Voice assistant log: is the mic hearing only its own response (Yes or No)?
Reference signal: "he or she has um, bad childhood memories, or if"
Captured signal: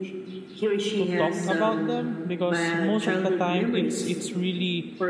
No